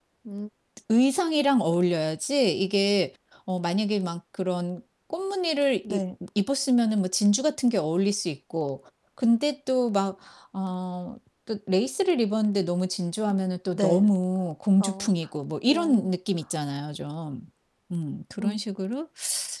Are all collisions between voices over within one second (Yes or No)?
Yes